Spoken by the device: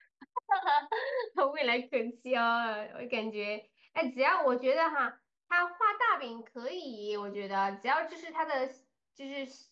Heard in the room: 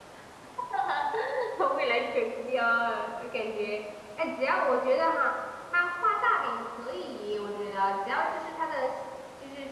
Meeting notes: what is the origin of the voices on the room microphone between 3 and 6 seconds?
echo only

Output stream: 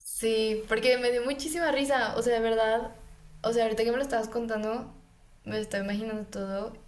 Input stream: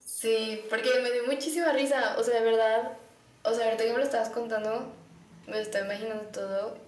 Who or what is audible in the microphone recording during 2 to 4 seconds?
echo only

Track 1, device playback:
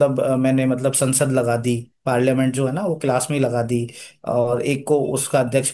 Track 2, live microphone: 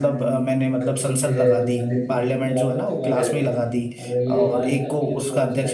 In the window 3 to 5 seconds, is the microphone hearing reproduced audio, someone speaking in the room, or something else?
both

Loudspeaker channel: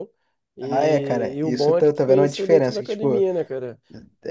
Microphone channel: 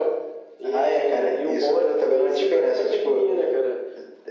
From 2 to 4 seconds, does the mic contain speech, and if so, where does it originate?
echo only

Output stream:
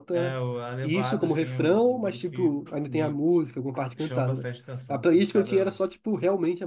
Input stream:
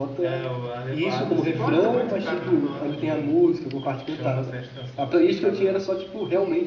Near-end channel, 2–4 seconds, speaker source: both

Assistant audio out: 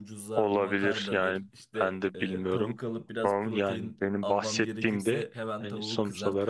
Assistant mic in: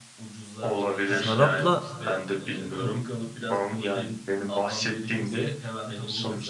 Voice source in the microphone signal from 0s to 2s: both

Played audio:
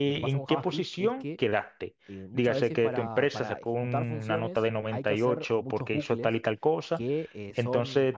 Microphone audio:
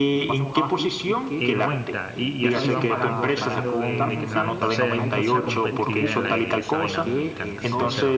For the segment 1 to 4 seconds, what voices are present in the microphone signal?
both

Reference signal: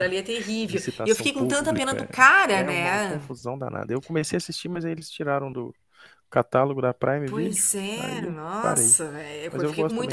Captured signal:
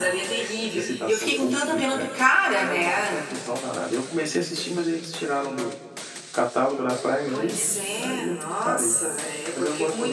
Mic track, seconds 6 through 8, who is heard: echo only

